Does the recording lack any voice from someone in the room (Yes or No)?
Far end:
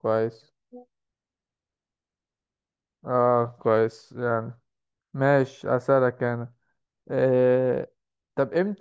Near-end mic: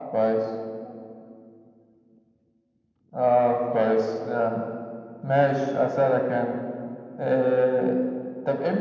Yes